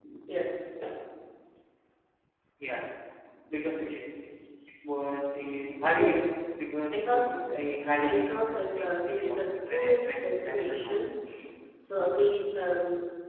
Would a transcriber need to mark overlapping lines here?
Yes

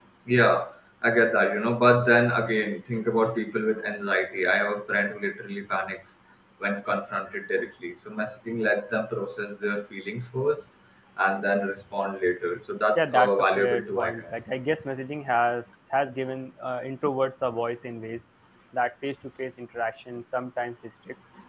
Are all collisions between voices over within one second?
No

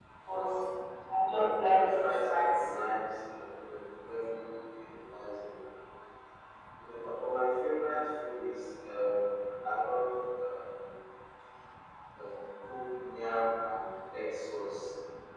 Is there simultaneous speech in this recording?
Yes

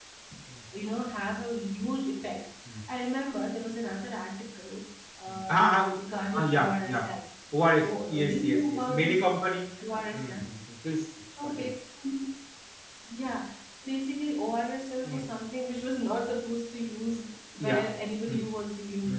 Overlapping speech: Yes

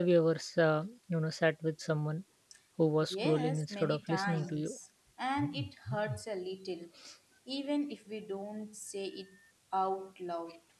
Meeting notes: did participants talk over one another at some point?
Yes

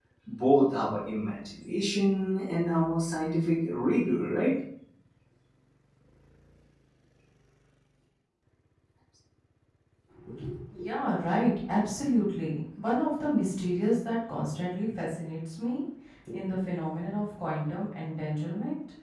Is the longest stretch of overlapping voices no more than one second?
Yes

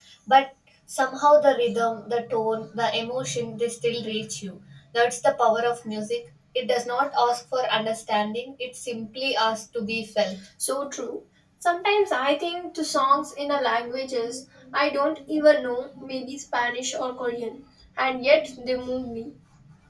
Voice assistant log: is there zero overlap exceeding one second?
Yes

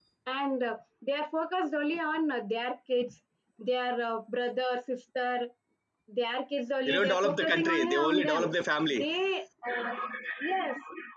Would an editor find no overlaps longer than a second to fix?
No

